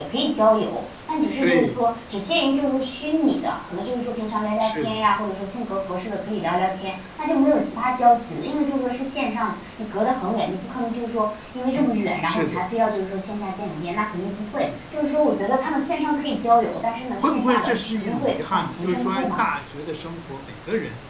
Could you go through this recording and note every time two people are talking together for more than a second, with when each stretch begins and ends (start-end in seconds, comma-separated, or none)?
17.2-19.4